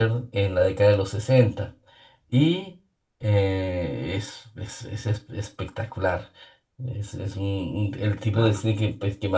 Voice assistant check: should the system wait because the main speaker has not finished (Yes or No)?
Yes